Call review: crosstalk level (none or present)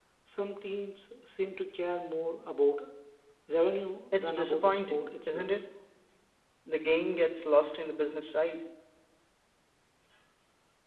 present